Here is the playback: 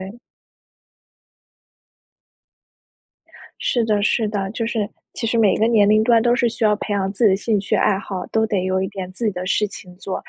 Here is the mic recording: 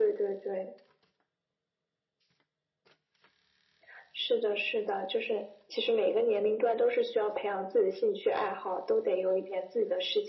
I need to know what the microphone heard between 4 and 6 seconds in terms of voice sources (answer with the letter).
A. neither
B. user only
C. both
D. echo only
D